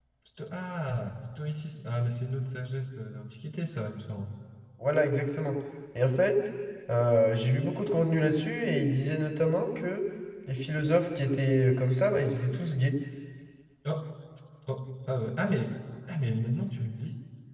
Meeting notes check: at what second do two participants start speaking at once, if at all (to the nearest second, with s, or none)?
none